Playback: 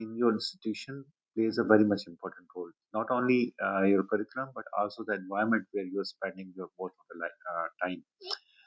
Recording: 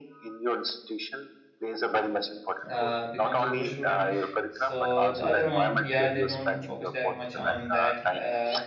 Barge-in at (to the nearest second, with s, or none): 3 s